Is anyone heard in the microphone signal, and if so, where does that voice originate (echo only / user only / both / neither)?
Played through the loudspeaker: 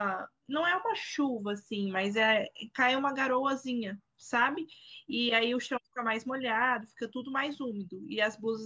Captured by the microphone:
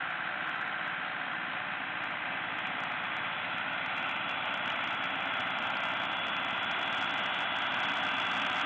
neither